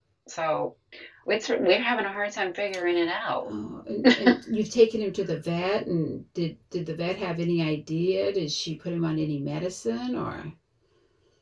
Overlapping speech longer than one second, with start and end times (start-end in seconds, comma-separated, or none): none